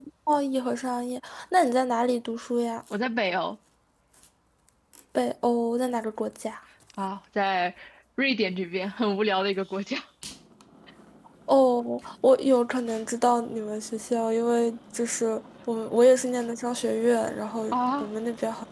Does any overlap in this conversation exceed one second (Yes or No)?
No